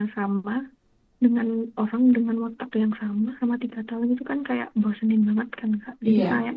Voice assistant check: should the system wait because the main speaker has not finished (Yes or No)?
Yes